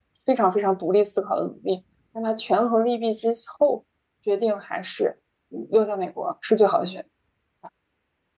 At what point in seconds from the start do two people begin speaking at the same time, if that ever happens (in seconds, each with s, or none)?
none